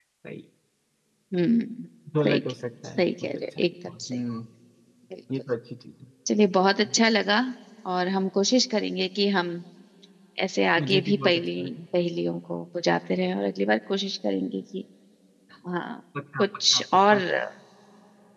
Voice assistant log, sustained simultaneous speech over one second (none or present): present